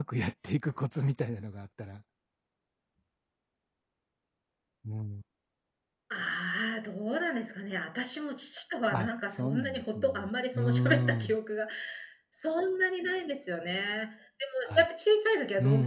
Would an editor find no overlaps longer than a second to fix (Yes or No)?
No